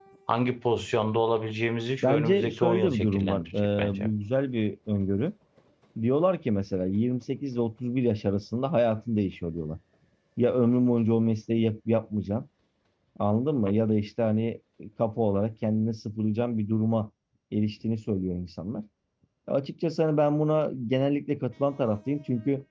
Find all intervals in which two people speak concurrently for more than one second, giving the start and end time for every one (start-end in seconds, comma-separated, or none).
2.0-4.1